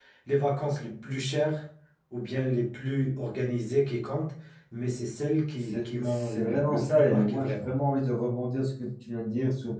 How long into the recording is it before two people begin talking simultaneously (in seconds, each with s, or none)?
5.6 s